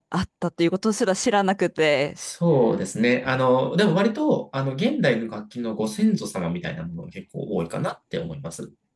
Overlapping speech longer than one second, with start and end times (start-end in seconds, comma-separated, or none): none